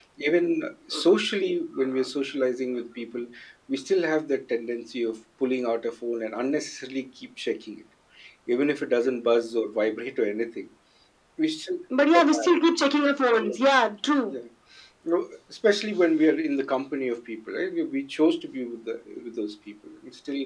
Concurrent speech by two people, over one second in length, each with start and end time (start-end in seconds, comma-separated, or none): none